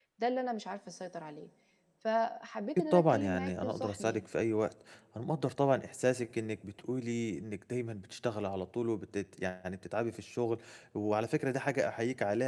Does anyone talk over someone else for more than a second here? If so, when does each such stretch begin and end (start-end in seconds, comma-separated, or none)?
2.8-4.2